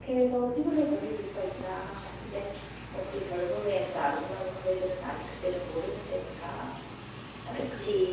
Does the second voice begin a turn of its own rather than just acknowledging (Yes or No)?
No